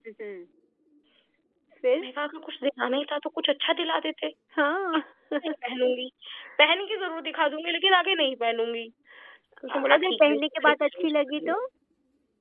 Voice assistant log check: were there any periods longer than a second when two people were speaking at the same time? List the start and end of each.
9.7-11.6

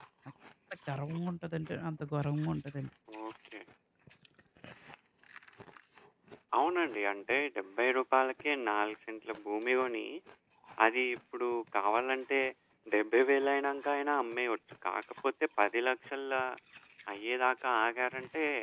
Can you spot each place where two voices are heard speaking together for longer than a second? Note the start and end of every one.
none

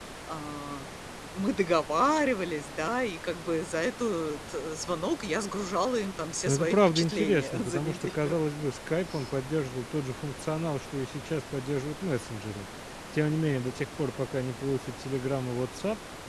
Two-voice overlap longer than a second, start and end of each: 6.5-8.3

